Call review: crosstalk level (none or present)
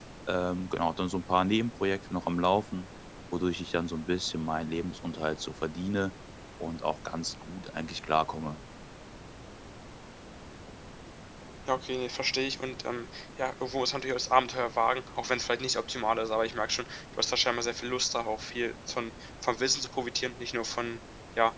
none